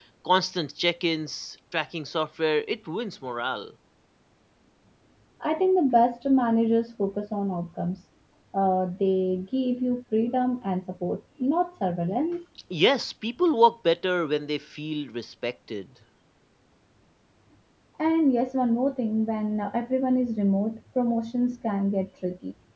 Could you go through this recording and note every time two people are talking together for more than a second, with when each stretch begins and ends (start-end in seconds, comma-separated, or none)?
none